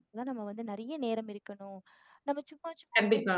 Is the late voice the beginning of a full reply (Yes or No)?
No